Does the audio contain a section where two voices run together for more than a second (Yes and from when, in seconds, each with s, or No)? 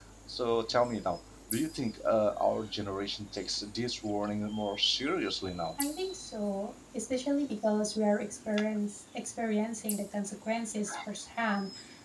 No